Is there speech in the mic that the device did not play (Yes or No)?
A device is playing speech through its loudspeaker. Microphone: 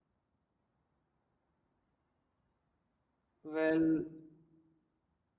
Yes